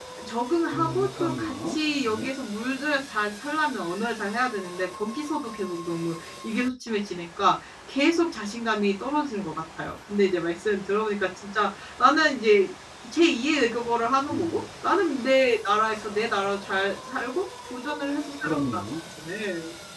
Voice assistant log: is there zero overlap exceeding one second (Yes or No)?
No